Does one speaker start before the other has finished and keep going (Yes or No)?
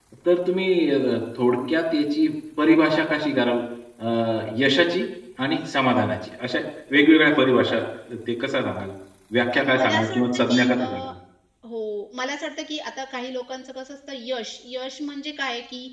Yes